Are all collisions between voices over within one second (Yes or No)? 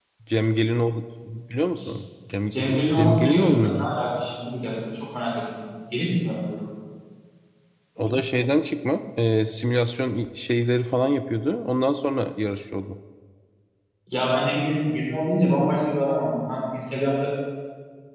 No